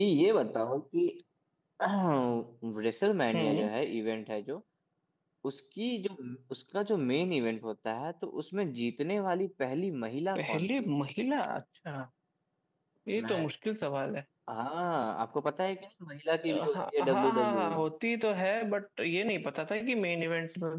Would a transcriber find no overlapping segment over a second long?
No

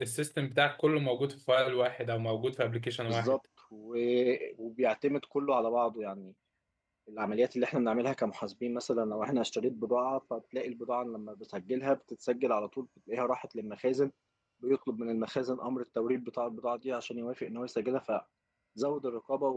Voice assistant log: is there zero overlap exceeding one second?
Yes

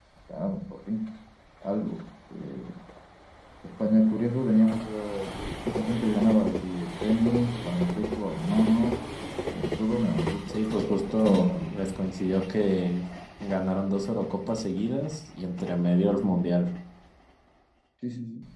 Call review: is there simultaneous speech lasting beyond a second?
Yes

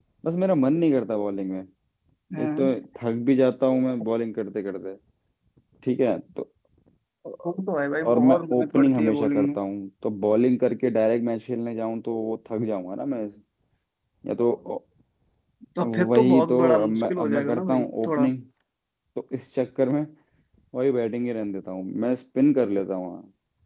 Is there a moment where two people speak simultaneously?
Yes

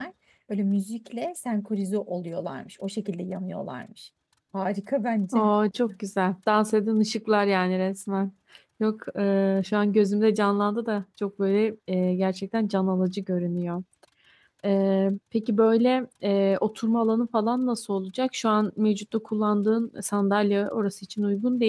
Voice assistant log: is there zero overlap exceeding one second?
Yes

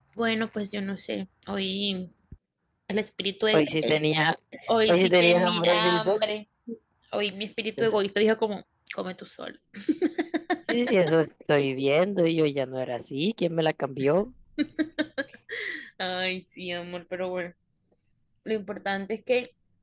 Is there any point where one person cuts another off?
Yes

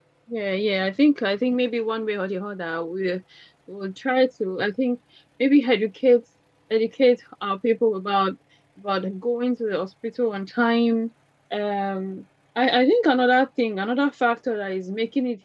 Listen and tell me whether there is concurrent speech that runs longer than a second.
No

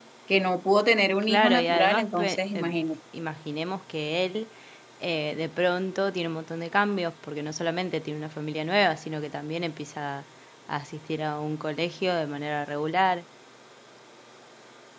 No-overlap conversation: No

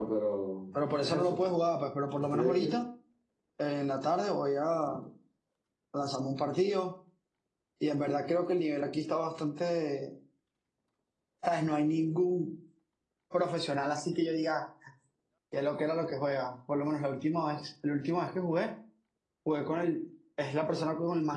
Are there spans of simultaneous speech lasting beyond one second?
No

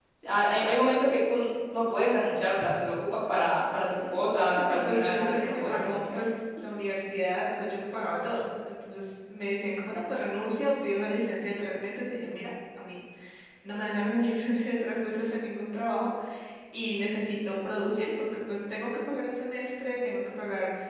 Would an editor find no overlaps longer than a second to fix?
No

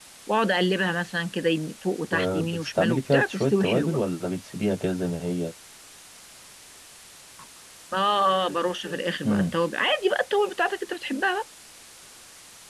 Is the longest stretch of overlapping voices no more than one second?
No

